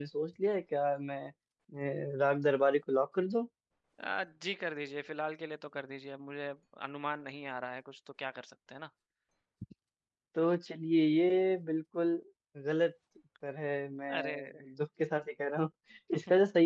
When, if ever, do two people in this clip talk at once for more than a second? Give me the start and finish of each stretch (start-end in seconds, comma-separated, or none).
none